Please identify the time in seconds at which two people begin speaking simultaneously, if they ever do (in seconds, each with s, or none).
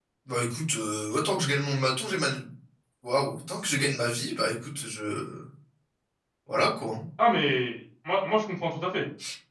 none